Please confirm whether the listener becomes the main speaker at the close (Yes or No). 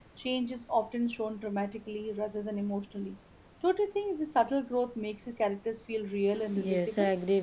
Yes